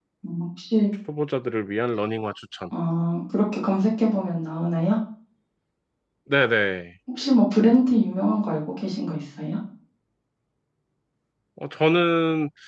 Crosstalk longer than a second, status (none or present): none